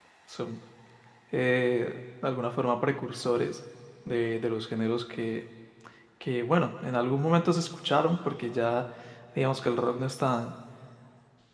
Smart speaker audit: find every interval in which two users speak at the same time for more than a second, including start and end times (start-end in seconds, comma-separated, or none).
none